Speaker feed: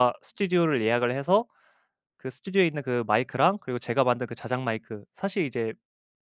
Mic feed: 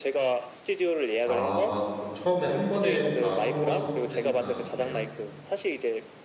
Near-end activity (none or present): present